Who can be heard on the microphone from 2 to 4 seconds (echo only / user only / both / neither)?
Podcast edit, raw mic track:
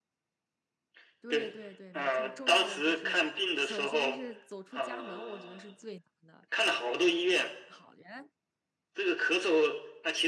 both